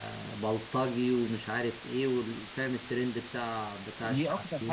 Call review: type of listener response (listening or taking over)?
taking over